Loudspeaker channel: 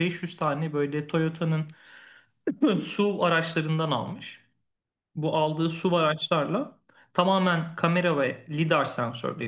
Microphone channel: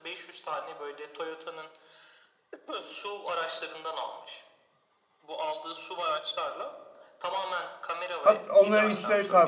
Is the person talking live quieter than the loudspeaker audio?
No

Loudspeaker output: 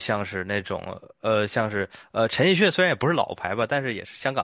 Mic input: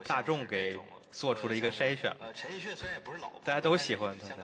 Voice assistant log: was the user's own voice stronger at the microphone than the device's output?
Yes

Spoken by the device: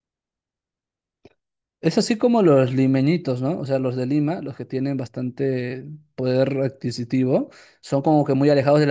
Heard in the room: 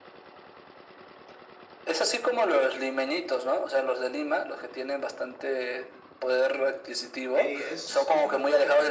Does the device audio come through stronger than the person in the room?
Yes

